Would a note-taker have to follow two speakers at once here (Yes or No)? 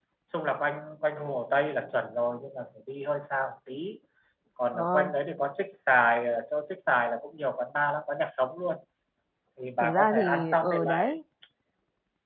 Yes